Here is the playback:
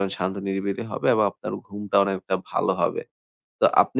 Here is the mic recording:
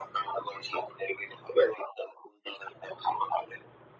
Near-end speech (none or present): none